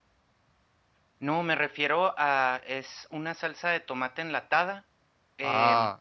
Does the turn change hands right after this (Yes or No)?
No